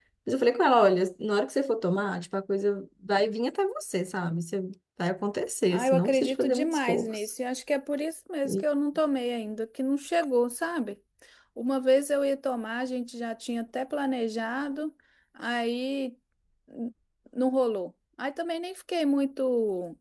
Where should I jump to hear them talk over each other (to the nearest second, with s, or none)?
6 s